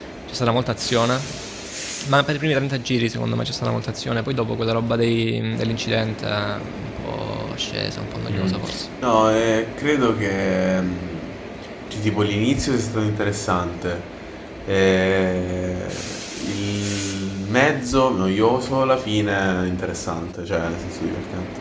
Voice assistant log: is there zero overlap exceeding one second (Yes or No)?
Yes